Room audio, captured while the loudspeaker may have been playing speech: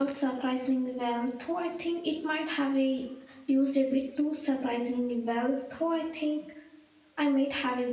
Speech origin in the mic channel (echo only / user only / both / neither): user only